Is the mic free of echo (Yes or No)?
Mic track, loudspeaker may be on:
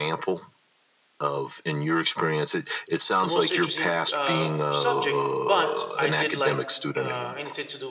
No